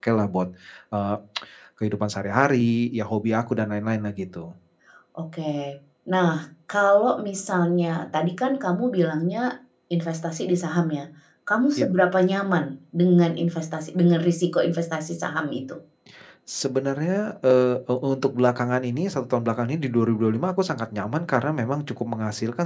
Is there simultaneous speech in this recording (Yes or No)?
No